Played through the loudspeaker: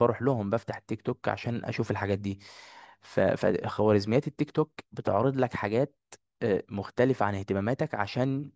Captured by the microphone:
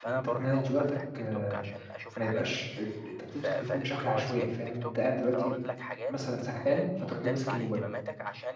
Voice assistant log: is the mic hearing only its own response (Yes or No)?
No